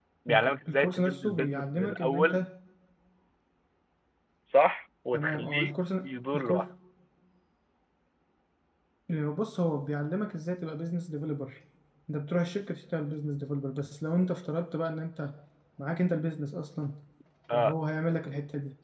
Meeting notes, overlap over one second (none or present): present